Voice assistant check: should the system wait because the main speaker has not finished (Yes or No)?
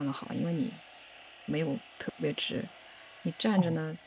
Yes